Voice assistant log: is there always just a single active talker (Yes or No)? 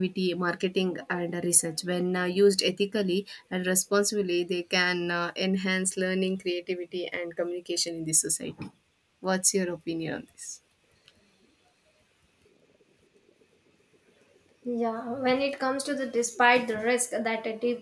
Yes